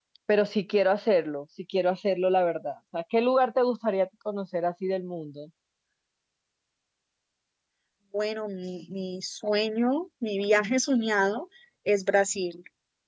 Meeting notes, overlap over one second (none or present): none